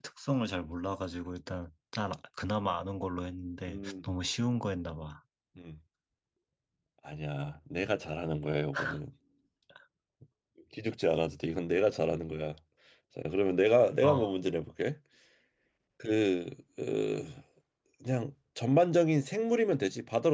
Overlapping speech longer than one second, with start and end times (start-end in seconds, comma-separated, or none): none